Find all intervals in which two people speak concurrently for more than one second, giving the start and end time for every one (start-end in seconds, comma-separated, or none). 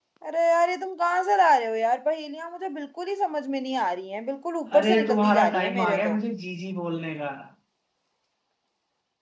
4.8-6.1